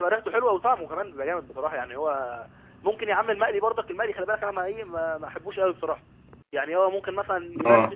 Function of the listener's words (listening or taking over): listening